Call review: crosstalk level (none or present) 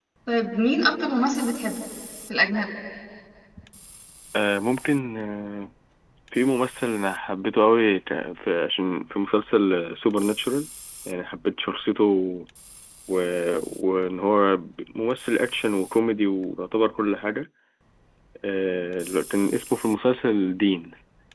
none